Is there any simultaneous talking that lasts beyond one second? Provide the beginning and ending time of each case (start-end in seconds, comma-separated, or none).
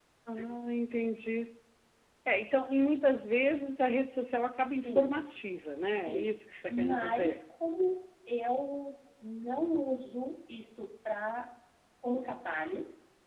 6.0-7.4